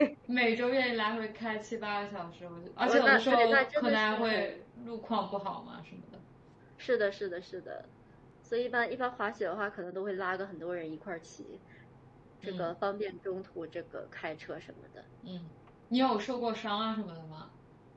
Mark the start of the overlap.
2.8 s

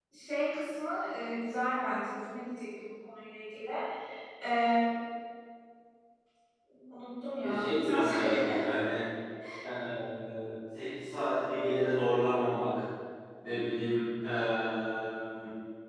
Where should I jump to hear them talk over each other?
7.4 s

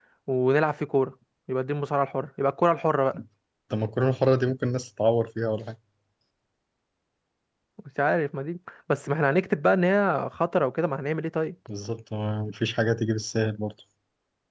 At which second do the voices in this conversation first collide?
none

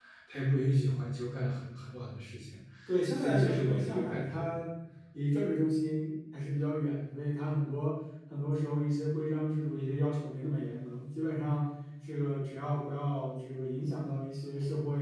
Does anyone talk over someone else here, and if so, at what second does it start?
3.2 s

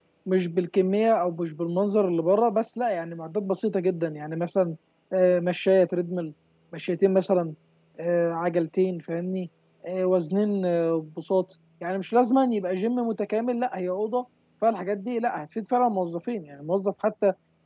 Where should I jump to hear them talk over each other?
none

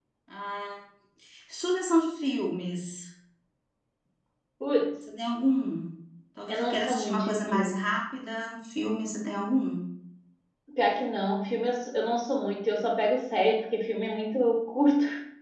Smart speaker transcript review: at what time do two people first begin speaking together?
6.5 s

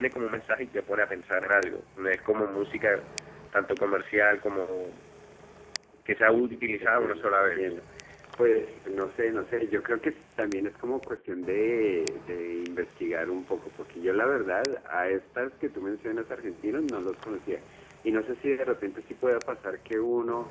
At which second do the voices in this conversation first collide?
6.4 s

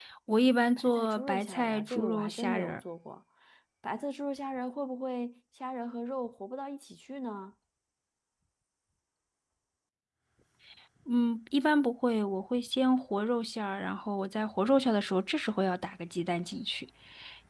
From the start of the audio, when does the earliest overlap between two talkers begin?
0.8 s

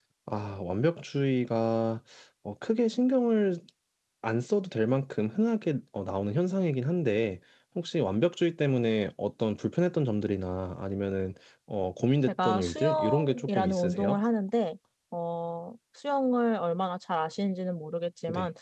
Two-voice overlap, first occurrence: 12.3 s

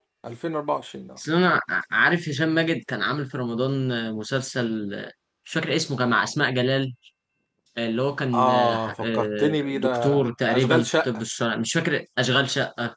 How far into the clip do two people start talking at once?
8.3 s

